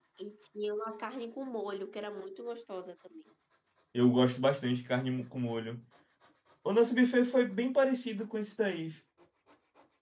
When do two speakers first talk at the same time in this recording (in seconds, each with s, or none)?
none